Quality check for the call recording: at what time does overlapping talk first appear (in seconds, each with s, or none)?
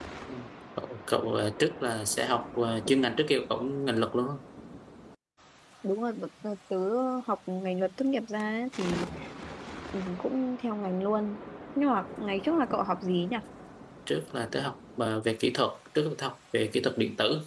none